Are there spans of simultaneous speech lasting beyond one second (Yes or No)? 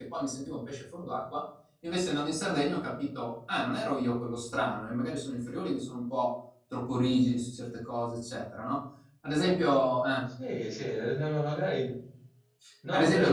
No